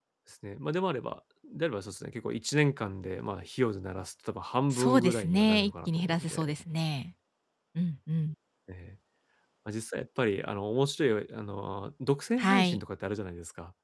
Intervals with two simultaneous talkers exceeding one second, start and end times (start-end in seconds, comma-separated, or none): 4.7-6.5